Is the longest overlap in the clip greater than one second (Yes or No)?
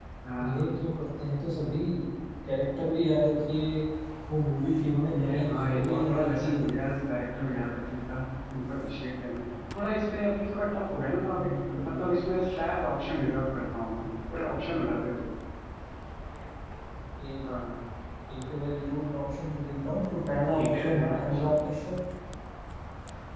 Yes